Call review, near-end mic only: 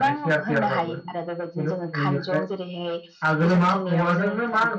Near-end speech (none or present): present